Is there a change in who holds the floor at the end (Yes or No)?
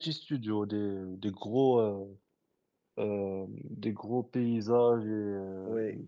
No